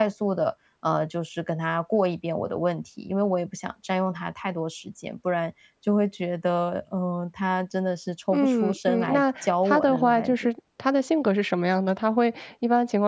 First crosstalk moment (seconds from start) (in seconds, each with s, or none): 8.3 s